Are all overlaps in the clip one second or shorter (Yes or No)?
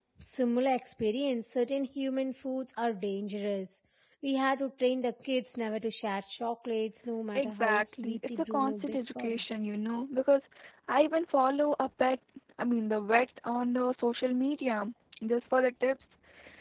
No